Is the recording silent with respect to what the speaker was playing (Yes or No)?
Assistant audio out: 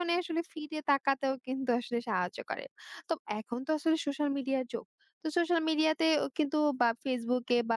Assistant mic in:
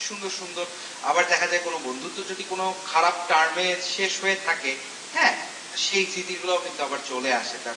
Yes